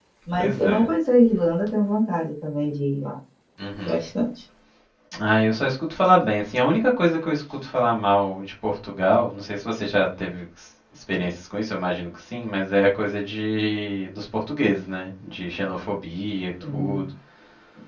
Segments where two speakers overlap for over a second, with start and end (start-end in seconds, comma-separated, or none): none